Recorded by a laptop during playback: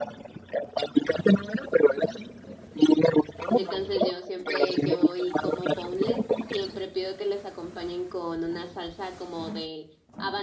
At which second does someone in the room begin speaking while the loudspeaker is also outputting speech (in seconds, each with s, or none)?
3.5 s